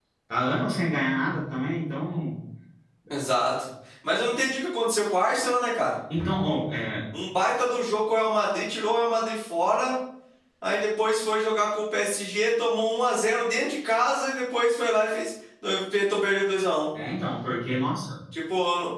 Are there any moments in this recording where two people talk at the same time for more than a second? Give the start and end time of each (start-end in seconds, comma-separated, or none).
none